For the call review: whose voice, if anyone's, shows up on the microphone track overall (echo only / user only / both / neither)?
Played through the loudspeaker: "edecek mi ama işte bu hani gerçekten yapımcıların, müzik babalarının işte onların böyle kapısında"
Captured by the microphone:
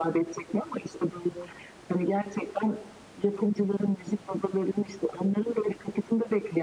echo only